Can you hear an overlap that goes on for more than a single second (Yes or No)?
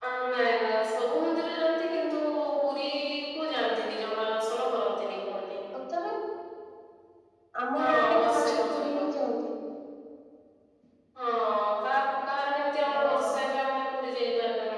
Yes